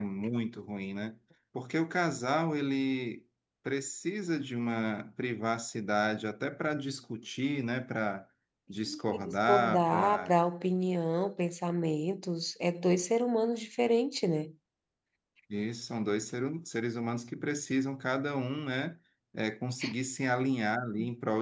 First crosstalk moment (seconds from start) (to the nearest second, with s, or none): 9 s